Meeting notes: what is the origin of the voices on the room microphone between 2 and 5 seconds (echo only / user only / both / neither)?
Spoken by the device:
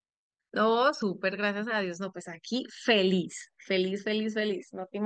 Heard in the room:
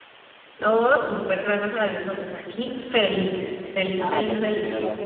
both